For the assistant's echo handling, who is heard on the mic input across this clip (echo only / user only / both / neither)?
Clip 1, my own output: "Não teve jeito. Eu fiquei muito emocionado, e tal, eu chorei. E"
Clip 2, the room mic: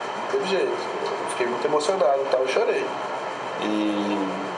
echo only